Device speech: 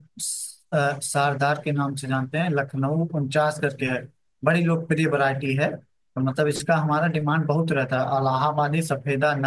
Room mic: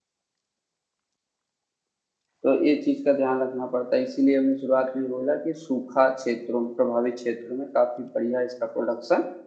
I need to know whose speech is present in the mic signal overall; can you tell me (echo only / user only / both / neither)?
user only